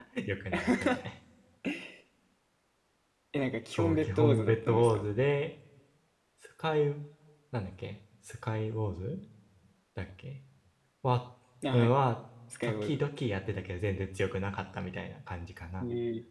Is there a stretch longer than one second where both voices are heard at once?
Yes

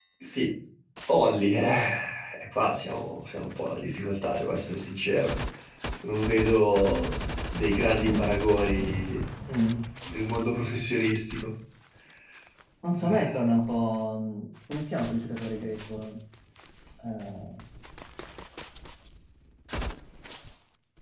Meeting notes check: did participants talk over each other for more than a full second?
No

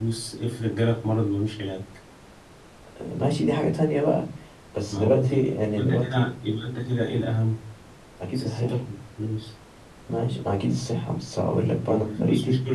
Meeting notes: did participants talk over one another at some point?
Yes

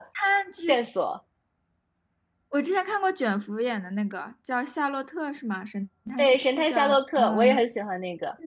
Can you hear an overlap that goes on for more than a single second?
Yes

